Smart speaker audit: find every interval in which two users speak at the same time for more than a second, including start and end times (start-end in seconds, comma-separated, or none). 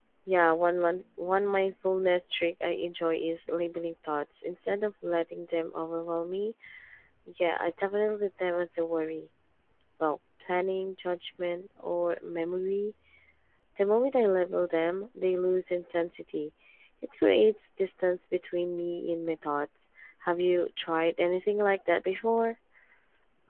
none